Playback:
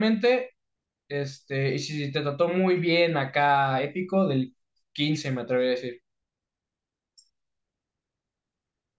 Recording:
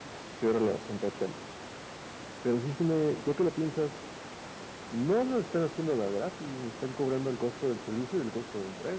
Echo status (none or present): none